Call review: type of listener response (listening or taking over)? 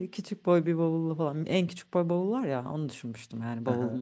taking over